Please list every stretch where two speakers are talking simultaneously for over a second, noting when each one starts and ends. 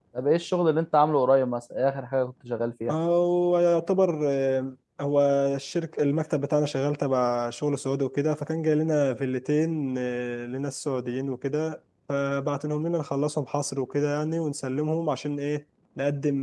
none

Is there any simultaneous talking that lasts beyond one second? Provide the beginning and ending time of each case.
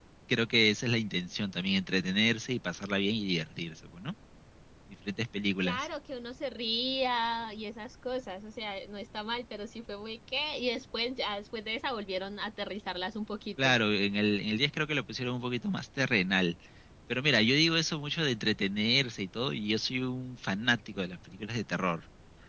none

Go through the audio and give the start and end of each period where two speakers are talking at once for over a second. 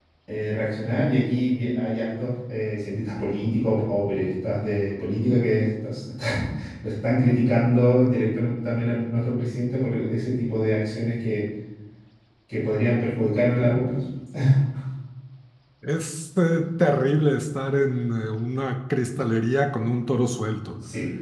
none

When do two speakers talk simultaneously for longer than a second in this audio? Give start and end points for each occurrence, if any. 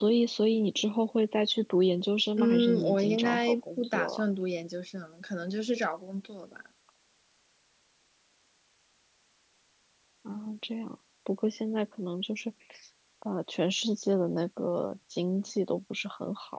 2.4-4.2

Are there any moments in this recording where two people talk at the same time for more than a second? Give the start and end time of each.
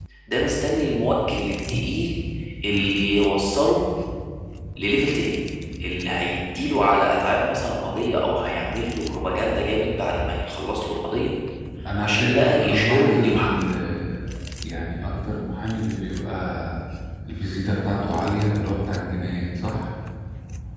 12.0-13.5

